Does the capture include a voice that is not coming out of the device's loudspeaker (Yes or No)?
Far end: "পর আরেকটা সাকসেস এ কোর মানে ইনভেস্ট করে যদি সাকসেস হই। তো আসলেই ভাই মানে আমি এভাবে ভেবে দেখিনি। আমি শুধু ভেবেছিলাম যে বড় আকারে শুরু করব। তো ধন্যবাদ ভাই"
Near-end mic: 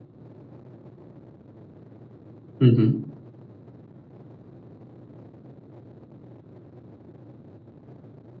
Yes